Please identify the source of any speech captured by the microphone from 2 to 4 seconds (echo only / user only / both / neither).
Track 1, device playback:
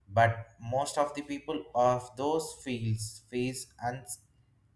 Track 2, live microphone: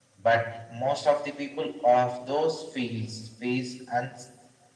echo only